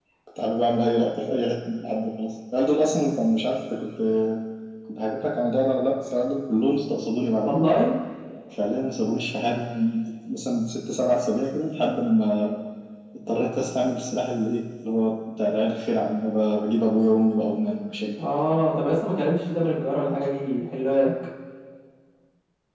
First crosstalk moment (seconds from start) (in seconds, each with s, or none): none